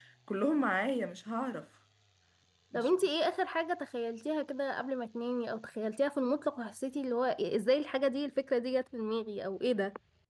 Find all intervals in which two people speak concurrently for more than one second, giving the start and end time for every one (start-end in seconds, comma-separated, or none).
none